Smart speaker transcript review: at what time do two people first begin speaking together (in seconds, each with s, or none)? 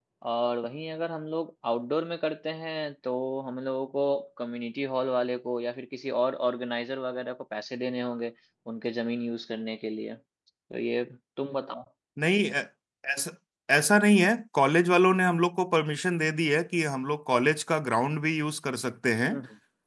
none